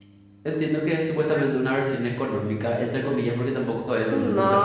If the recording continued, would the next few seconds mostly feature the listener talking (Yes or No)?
Yes